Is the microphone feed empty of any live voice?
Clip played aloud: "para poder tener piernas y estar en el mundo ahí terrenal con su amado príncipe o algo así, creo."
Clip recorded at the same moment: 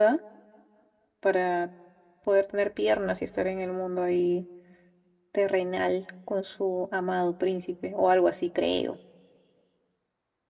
Yes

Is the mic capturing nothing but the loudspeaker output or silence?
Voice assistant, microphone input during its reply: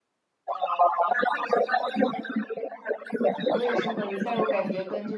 No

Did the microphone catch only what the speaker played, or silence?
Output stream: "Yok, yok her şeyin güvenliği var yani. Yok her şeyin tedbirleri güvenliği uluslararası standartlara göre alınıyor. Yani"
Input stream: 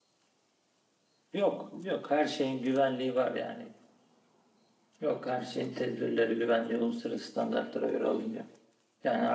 Yes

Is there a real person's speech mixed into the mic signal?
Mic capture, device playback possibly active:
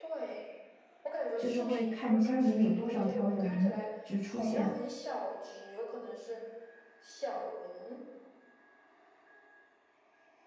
Yes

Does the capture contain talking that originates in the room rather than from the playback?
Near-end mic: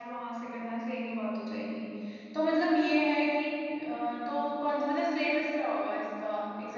Yes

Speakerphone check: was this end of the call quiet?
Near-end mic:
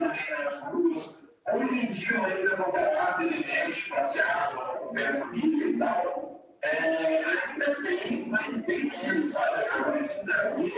Yes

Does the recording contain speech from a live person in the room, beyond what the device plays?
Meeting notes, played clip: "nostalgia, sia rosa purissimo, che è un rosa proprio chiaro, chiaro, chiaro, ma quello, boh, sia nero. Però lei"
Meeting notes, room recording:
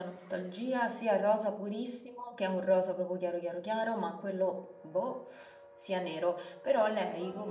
Yes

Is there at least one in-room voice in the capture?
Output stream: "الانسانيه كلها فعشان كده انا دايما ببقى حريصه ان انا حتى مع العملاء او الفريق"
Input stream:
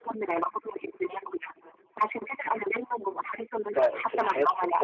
Yes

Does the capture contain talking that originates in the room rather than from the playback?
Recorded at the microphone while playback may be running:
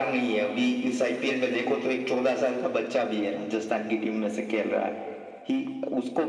No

